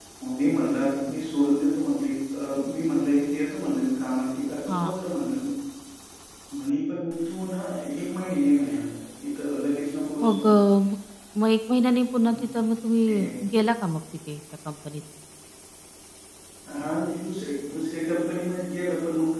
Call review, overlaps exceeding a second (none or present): none